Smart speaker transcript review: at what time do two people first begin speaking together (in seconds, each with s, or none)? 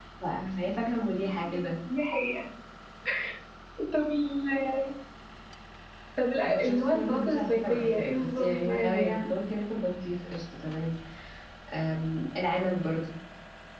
6.4 s